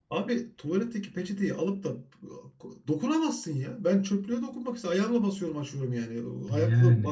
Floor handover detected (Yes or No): No